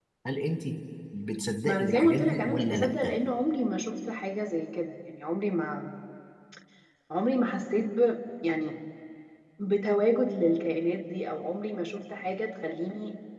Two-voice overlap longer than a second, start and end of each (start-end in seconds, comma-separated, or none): 1.6-2.9